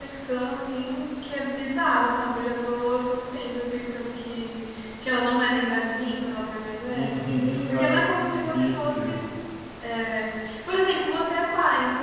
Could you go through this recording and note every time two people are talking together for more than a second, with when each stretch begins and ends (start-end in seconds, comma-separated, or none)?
7.7-9.1